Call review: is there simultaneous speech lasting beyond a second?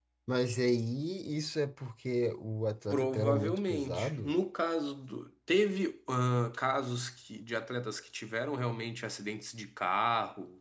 Yes, from 2.9 s

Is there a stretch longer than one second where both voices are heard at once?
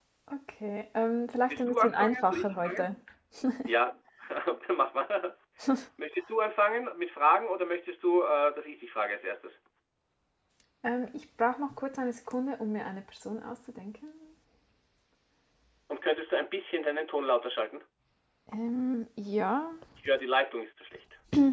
Yes, from 1.5 s

